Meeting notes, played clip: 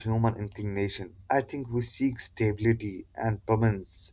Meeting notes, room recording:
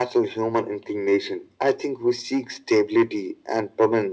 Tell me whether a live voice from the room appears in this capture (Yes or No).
No